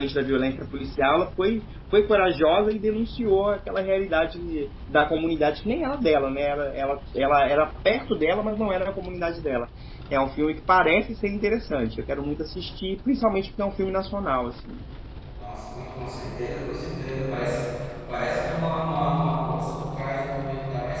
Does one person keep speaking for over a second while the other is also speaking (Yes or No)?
No